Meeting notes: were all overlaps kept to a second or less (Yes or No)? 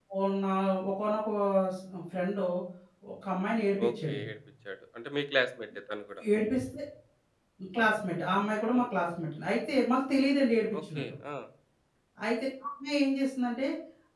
Yes